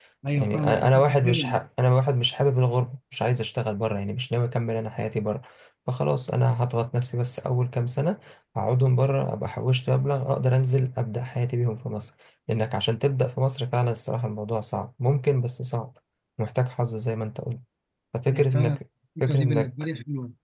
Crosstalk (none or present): present